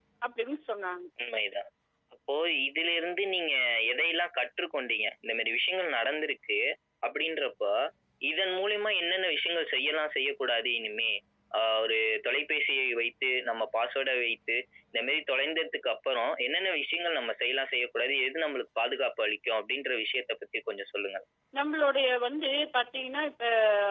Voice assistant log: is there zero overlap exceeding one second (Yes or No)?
Yes